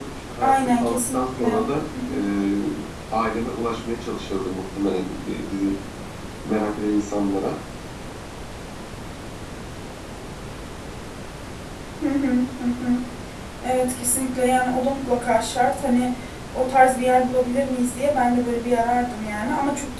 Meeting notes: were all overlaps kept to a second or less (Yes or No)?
No